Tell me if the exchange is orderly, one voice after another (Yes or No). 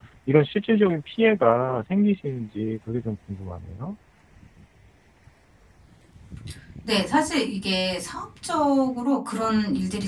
Yes